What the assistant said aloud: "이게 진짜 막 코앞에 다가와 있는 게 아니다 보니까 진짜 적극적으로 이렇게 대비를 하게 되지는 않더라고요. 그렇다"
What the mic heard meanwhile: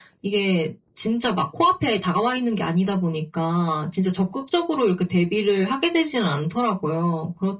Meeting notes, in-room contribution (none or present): none